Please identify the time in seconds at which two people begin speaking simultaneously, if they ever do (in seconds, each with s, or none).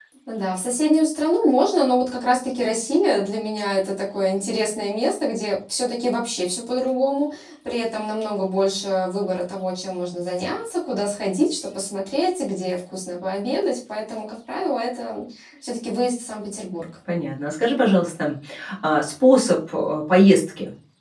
none